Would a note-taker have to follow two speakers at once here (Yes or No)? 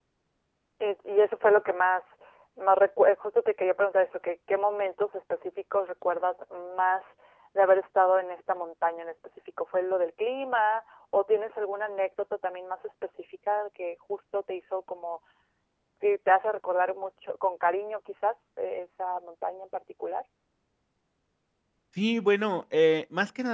No